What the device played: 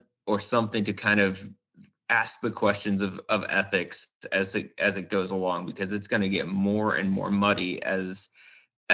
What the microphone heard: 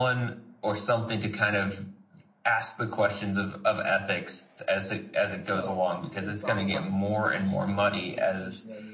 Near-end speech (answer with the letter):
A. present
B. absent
A